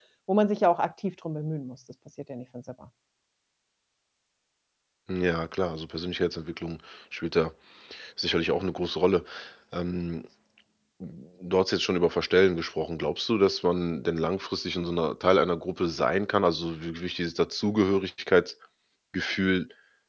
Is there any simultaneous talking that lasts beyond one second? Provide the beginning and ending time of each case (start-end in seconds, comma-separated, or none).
none